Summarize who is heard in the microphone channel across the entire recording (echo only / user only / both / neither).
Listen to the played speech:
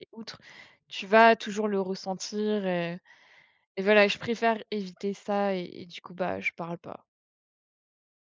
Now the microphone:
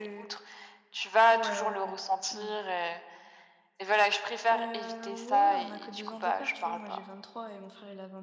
both